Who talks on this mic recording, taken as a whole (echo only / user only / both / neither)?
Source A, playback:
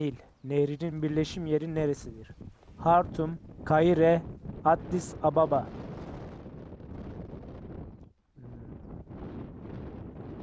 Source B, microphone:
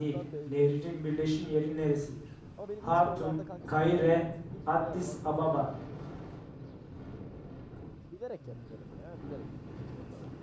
both